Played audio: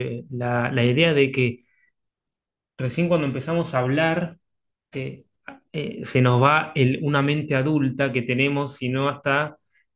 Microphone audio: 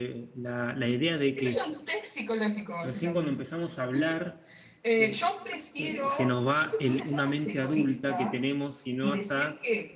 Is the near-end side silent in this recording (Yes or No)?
No